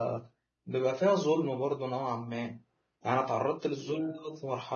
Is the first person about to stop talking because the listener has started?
No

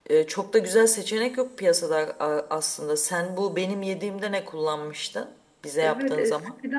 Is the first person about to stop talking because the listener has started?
Yes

